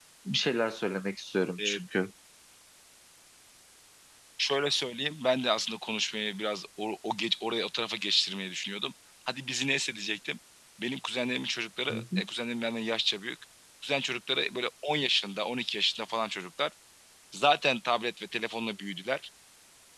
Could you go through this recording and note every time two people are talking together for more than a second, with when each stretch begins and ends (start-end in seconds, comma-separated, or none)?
none